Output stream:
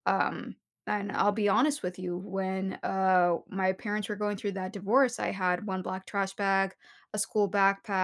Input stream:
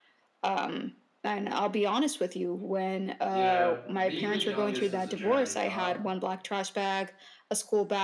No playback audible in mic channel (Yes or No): No